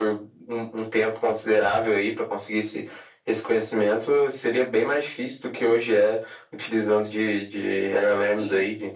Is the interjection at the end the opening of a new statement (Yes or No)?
Yes